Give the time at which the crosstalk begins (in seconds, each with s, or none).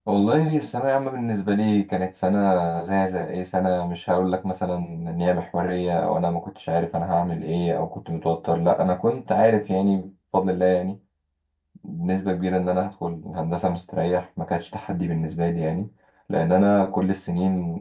none